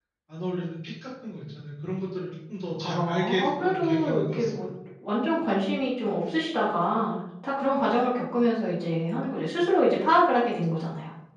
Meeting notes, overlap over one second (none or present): present